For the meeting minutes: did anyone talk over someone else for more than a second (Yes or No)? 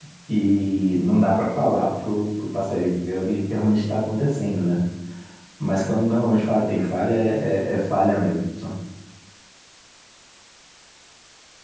No